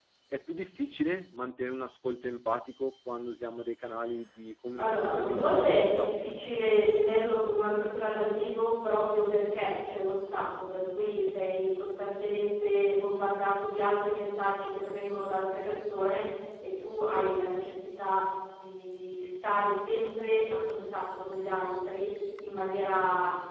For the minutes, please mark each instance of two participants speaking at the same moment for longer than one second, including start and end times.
4.8-6.3

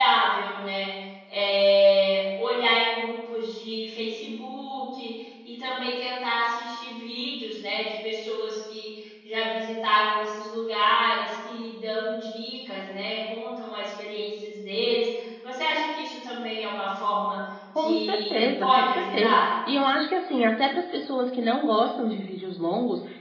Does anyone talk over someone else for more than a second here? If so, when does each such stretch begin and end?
17.8-19.4

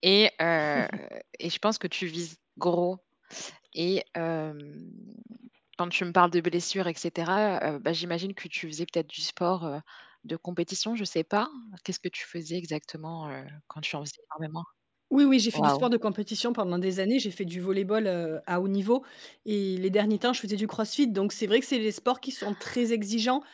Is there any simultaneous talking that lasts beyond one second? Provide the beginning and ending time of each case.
none

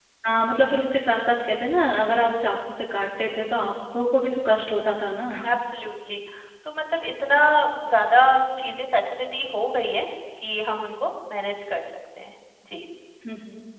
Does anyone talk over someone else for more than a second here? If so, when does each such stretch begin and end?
none

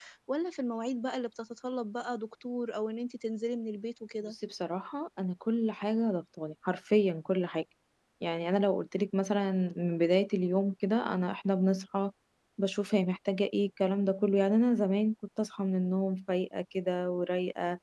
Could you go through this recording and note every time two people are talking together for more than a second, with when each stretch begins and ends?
none

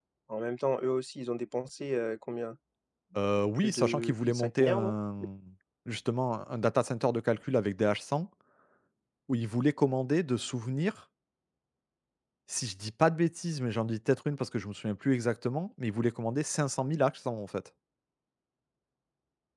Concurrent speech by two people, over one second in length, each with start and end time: 3.6-5.0

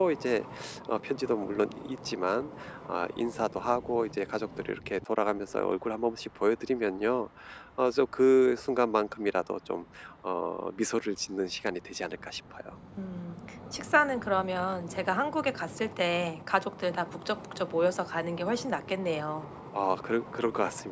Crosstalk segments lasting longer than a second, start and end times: none

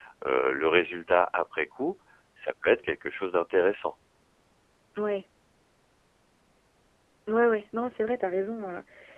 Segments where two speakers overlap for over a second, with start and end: none

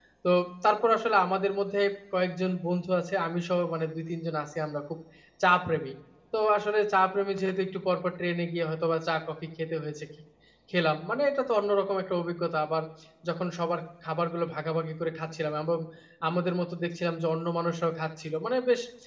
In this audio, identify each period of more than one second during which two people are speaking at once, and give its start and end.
none

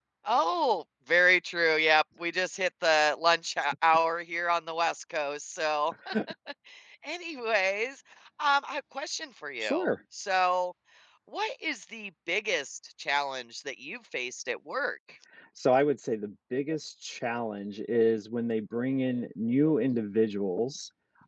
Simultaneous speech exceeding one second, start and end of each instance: none

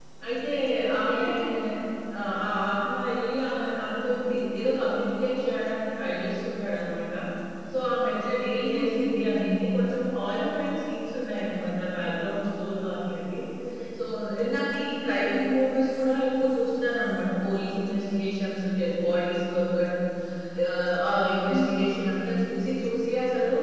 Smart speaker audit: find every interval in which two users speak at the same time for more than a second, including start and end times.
none

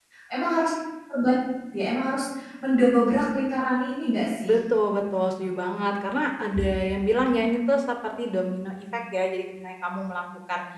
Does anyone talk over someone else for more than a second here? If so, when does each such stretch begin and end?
none

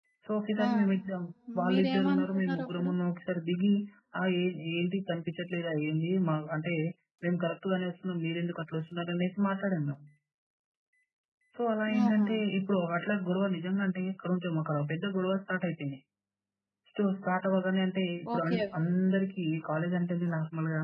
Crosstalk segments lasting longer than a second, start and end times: 1.7-2.9

